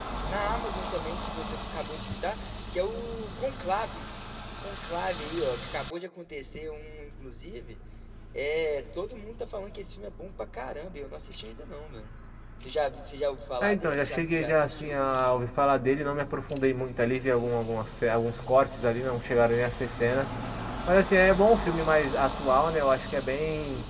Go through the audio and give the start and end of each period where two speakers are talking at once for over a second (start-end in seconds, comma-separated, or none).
13.6-14.9